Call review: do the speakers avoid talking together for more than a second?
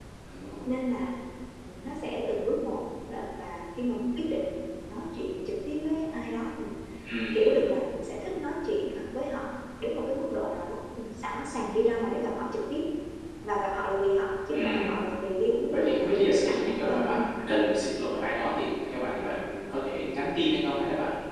No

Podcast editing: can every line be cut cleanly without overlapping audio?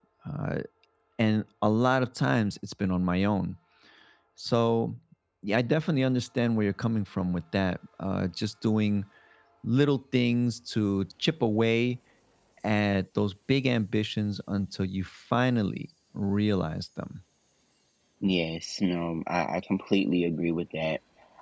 Yes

